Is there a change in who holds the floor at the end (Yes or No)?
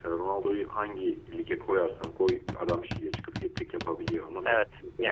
Yes